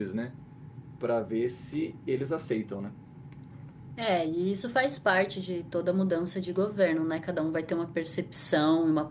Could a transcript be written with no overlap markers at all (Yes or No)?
Yes